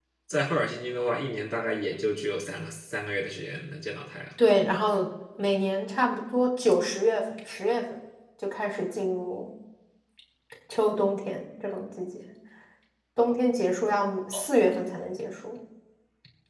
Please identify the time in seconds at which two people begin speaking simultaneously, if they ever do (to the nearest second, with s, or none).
none